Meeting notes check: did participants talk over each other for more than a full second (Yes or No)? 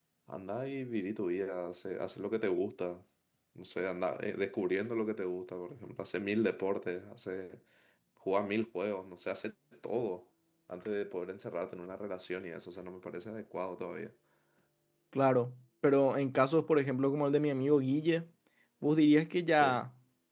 No